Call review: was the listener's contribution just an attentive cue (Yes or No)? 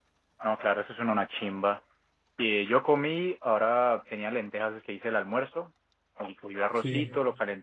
Yes